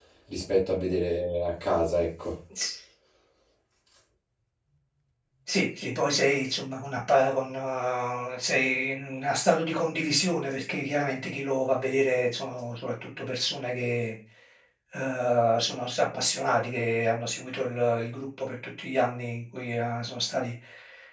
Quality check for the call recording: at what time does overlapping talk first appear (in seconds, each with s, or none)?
none